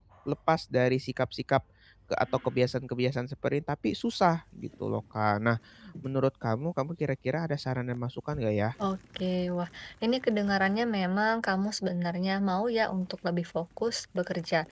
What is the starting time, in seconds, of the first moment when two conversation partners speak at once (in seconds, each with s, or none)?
none